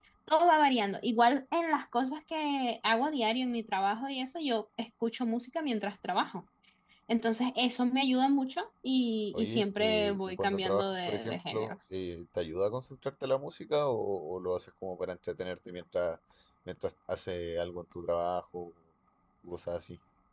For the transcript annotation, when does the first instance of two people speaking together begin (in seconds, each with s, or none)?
9.3 s